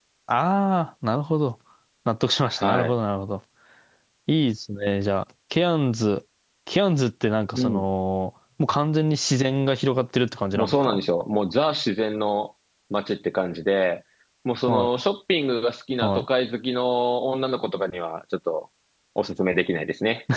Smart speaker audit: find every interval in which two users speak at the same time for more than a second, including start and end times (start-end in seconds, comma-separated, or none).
none